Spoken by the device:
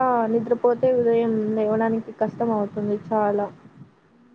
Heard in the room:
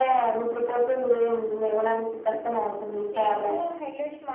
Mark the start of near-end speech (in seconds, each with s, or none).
3.1 s